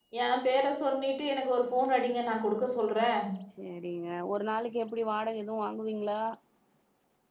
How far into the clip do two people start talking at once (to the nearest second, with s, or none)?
none